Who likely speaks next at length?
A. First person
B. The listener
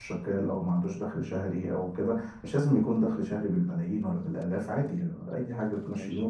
A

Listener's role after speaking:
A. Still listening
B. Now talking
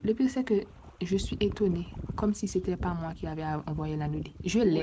B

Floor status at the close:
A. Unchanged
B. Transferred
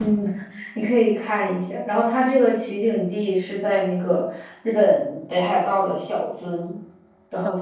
A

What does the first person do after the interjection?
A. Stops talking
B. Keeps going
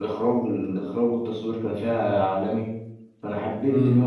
A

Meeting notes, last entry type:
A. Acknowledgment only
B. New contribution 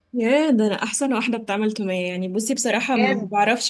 A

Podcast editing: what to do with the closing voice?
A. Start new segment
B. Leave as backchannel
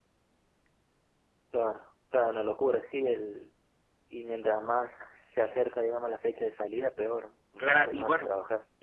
A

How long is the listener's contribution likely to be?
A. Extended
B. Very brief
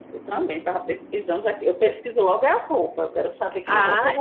A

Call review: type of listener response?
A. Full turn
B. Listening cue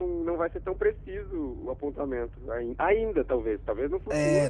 A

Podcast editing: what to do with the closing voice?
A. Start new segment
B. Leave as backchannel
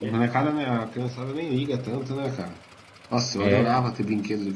B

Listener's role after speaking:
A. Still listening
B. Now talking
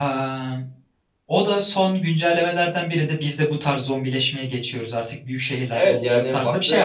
B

